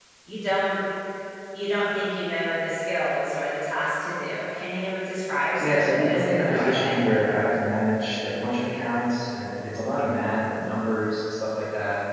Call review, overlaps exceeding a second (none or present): present